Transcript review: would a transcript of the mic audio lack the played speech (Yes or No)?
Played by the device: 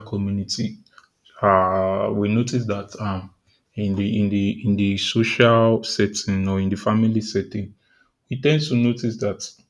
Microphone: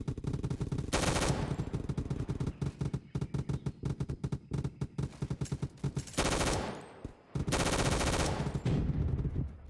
Yes